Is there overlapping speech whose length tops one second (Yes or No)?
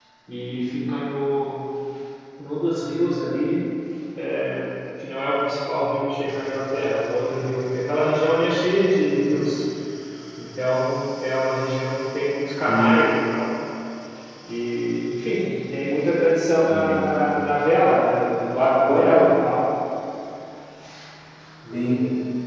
No